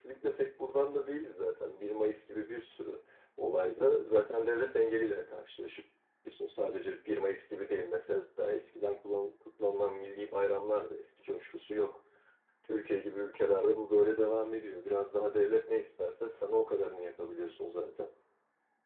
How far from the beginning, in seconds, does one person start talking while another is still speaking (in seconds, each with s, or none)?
none